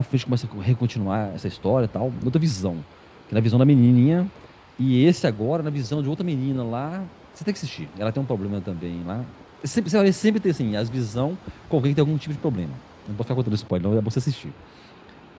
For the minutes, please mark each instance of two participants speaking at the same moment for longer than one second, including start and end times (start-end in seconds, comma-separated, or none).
none